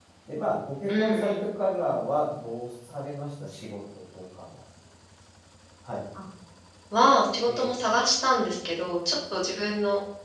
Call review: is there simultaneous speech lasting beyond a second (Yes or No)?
No